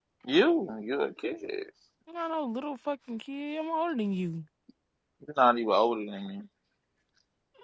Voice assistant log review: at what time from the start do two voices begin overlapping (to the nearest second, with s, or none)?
none